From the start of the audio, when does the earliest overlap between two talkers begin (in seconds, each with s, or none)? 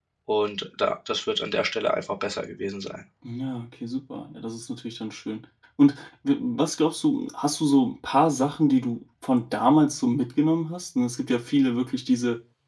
none